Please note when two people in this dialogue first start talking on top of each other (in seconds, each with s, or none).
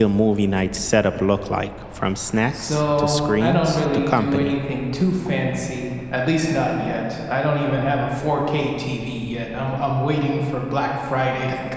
2.5 s